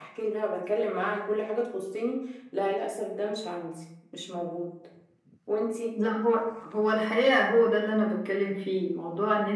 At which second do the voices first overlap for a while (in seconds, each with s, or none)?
none